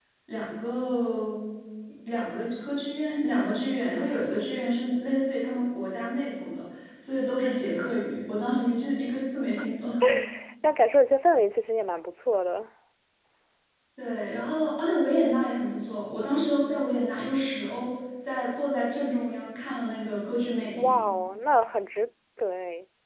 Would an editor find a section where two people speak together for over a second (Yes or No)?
No